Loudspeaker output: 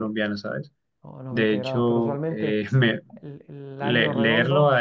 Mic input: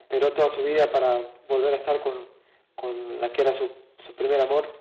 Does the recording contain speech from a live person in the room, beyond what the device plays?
Yes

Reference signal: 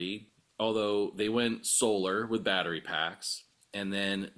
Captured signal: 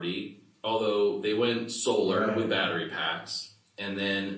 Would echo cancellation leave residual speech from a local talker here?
Yes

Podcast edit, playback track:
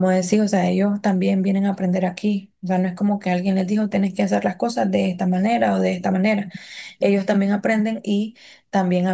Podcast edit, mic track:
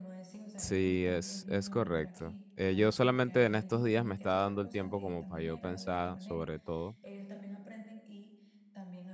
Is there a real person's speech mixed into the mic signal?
Yes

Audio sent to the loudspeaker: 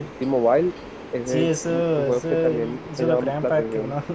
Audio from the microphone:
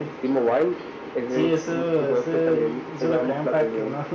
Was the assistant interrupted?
No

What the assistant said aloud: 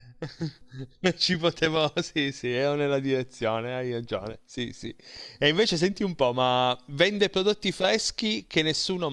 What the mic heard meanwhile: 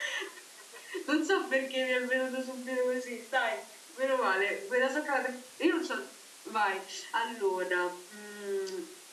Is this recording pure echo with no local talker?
No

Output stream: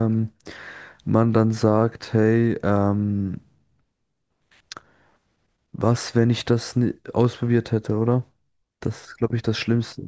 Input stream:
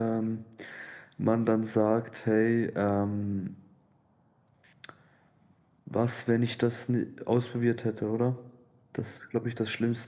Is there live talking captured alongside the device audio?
No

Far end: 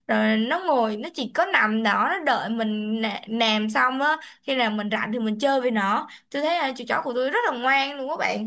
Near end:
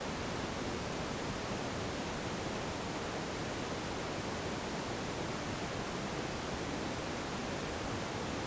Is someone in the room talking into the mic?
No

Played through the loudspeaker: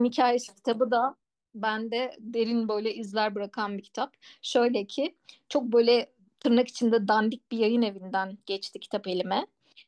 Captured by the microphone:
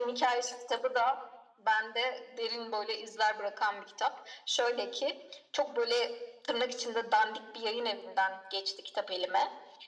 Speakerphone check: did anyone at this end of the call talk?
No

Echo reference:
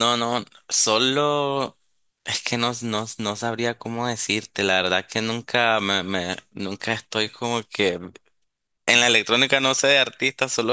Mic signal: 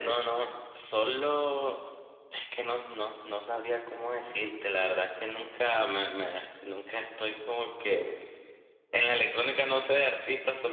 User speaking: No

